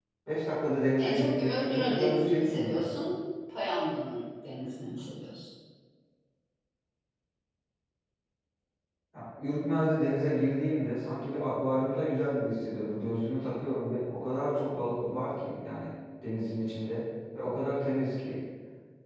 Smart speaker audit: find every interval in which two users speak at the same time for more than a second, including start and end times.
1.0-2.9

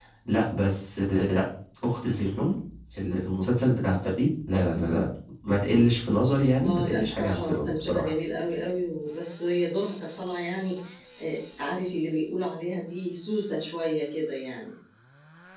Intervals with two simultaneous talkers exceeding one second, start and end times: 6.6-8.1

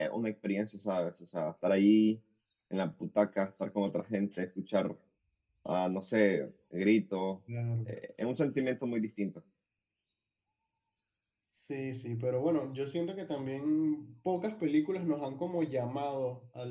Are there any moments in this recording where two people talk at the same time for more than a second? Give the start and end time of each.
none

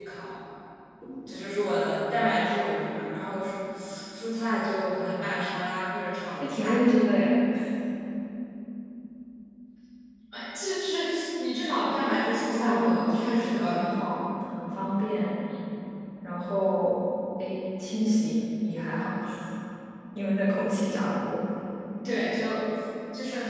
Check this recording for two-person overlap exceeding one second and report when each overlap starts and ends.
12.5-14.1

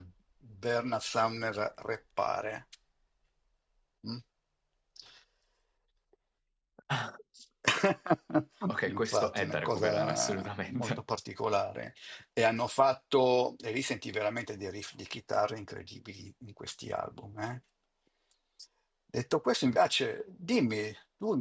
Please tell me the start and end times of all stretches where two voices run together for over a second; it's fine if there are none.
8.9-11.0

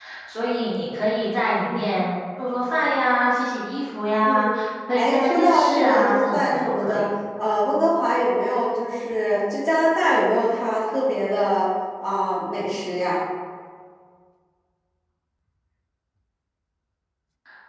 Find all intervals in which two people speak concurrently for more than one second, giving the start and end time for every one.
5.0-7.0

